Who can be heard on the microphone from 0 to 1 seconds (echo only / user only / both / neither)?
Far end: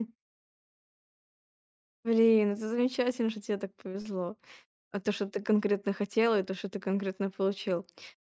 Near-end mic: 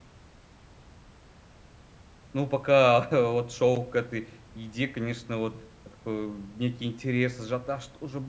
neither